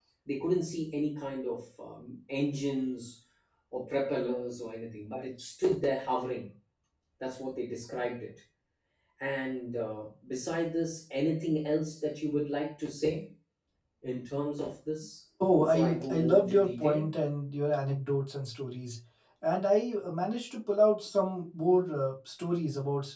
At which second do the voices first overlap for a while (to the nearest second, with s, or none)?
15 s